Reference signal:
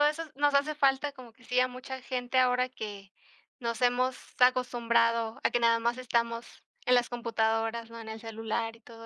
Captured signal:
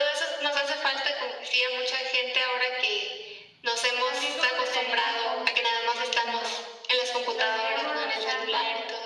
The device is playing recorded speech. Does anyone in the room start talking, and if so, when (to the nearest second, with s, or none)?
4 s